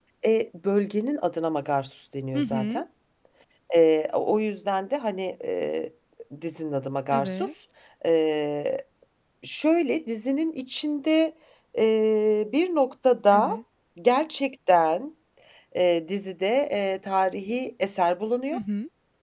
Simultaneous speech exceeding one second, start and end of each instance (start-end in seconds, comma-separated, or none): none